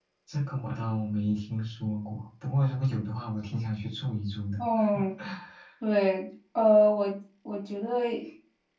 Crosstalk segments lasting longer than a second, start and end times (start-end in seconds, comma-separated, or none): none